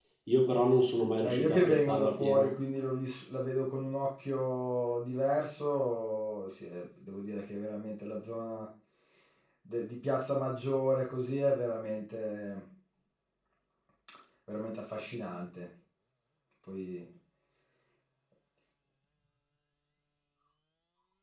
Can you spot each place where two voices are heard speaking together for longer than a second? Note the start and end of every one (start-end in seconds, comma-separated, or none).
1.2-2.5